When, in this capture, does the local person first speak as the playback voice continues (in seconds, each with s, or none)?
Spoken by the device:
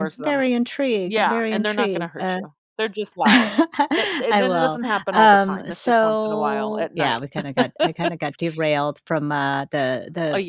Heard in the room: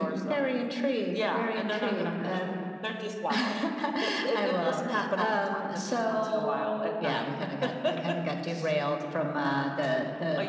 none